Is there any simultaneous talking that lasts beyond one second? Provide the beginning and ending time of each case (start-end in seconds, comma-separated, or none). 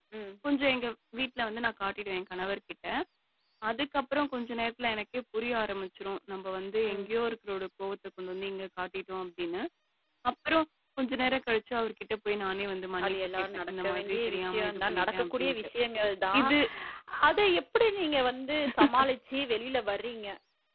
13.1-15.6